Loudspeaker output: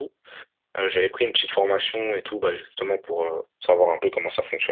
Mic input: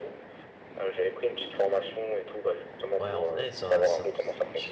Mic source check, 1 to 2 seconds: echo only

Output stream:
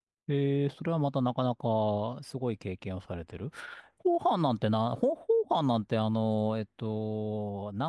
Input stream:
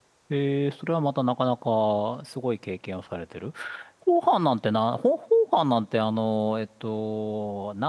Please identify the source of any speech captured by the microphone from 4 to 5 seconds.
echo only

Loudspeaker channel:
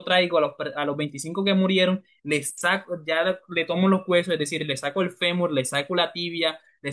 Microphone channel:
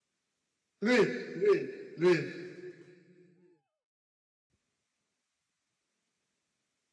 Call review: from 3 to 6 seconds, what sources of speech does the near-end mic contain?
neither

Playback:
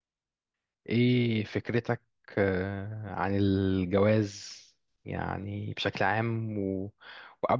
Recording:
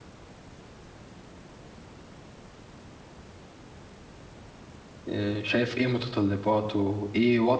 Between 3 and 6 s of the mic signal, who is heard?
user only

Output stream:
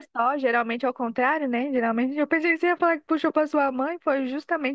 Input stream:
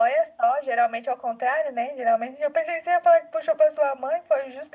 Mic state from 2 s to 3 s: echo only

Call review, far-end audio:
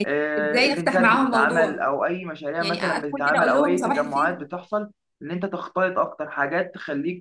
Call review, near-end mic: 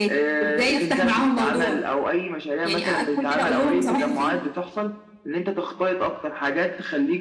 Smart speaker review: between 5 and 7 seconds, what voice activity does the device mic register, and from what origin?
echo only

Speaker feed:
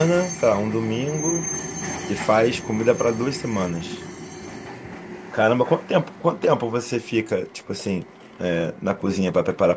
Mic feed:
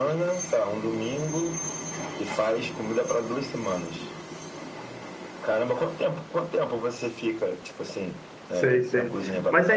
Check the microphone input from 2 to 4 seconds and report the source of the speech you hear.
echo only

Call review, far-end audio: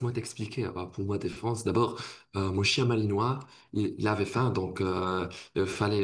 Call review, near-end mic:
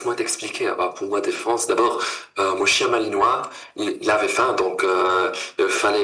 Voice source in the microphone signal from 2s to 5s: echo only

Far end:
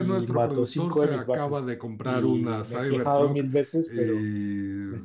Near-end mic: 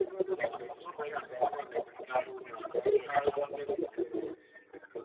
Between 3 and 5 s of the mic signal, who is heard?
echo only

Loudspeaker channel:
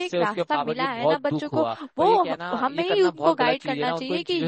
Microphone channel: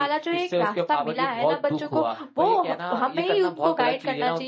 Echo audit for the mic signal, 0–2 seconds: echo only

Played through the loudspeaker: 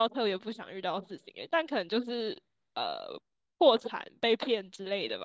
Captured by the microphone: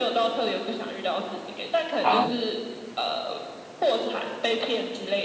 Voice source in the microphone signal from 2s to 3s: both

